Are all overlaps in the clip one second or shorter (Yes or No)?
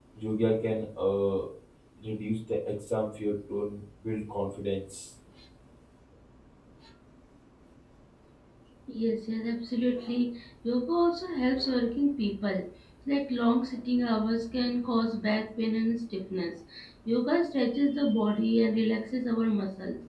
Yes